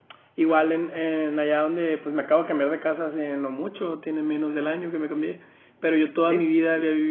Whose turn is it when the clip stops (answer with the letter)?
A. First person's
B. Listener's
A